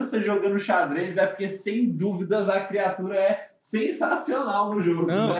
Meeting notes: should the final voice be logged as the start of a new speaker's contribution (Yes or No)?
Yes